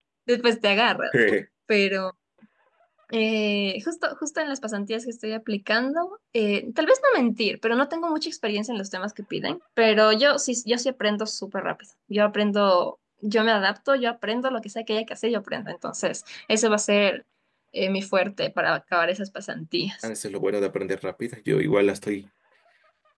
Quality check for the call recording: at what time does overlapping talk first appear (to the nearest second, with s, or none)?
none